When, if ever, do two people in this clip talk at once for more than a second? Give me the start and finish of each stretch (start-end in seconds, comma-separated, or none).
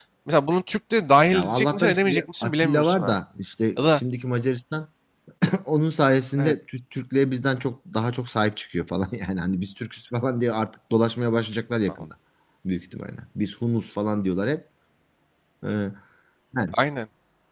1.3-3.1